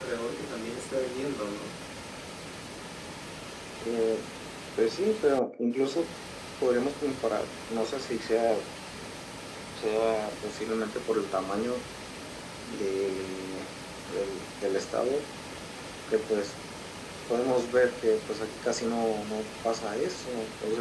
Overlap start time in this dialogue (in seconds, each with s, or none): none